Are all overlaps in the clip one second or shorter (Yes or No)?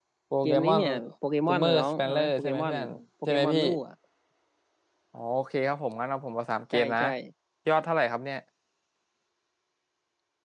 No